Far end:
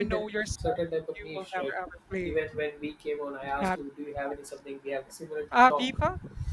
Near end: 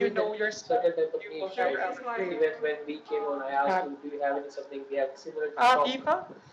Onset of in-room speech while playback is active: 1.5 s

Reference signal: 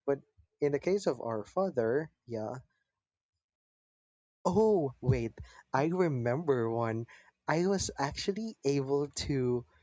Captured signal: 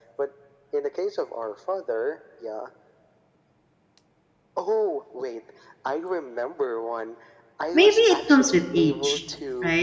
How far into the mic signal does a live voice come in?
7.7 s

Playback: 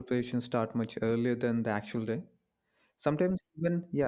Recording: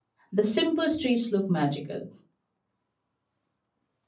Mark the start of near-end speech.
0.3 s

